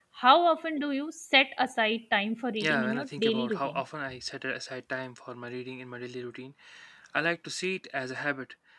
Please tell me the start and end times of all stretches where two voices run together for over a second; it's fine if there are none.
2.6-3.8

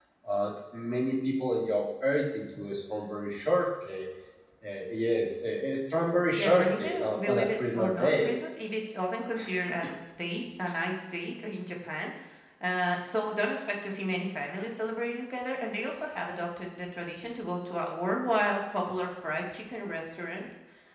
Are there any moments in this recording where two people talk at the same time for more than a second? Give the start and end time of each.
6.4-8.3

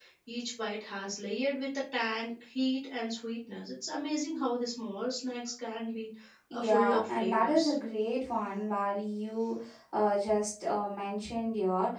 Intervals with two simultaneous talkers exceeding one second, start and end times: 6.5-7.8

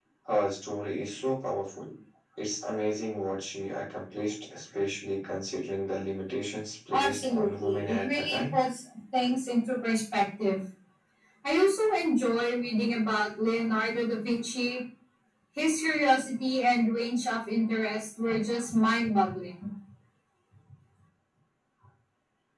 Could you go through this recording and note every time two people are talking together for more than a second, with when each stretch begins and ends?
6.9-8.5

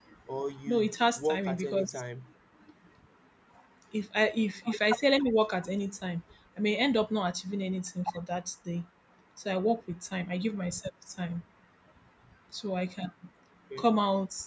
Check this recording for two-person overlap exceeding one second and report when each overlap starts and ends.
0.7-1.9

